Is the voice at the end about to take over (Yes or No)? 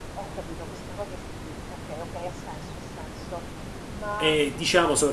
Yes